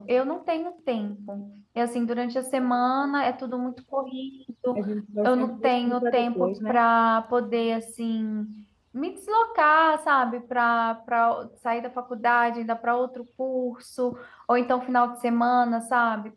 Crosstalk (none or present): present